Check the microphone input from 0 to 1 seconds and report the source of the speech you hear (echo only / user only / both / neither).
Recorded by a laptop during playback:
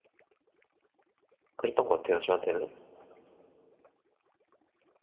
neither